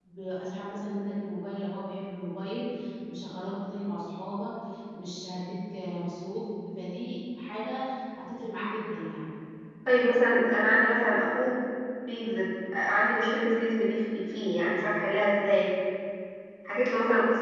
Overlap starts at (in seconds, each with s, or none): none